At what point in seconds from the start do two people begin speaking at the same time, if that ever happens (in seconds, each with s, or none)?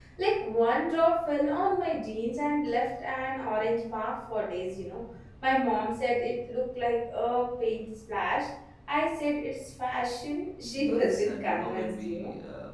10.6 s